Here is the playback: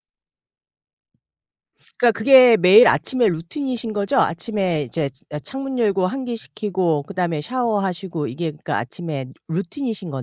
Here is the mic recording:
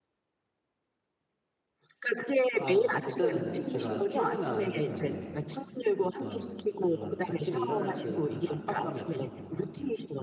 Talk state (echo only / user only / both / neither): both